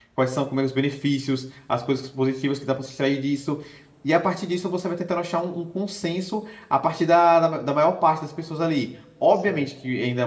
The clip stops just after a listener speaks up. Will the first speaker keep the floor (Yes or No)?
Yes